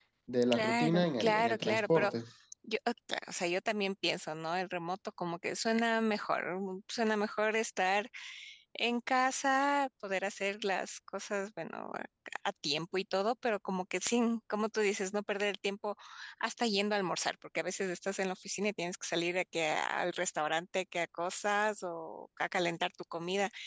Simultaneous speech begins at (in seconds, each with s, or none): 0.5 s